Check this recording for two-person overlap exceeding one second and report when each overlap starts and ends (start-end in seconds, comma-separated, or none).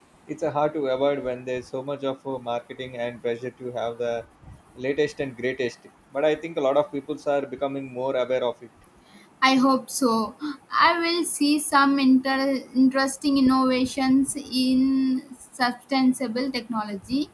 none